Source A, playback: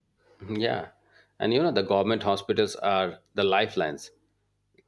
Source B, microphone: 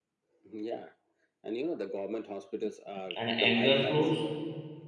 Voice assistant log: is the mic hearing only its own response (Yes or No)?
No